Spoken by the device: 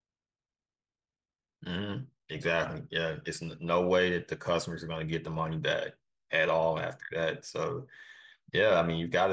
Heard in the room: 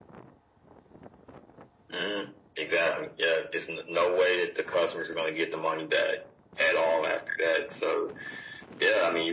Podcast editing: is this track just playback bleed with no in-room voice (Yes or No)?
Yes